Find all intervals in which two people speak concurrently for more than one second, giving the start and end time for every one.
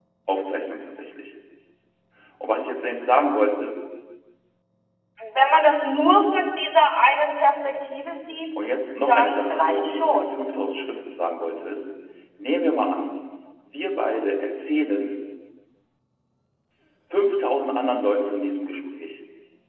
9.0-10.4

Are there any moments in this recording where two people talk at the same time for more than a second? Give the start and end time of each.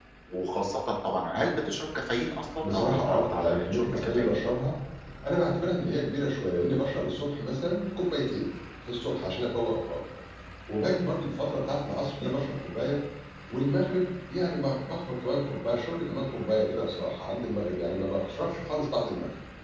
2.6-4.4

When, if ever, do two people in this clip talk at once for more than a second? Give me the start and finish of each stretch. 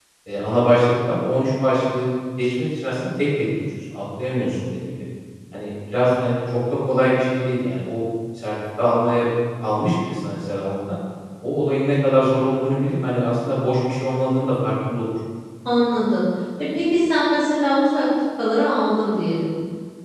none

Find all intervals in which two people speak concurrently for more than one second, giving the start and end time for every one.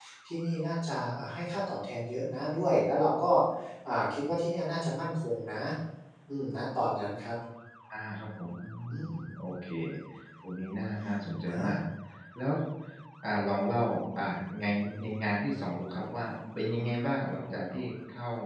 none

